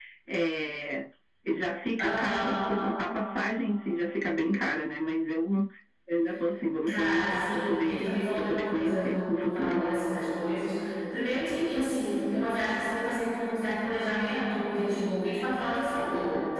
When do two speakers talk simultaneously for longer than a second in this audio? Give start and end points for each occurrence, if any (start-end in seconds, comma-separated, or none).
6.9-9.8